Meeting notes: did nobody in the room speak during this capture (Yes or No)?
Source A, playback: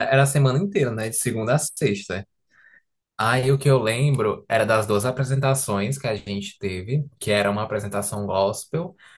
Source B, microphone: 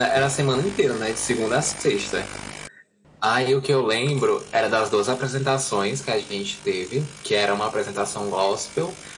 Yes